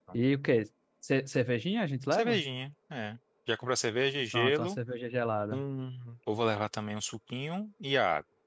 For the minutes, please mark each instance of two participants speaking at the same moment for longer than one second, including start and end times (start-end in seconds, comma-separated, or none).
none